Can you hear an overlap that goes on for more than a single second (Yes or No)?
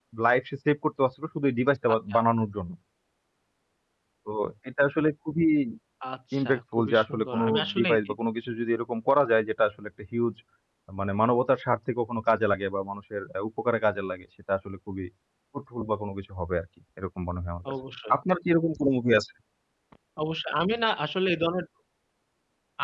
Yes